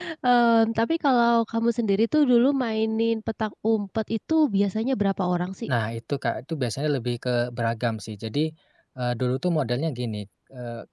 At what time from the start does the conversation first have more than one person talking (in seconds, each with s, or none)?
none